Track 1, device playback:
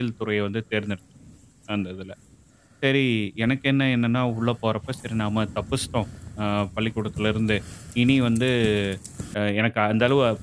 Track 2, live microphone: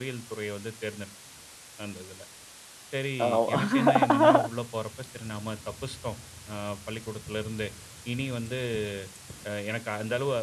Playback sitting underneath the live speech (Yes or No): Yes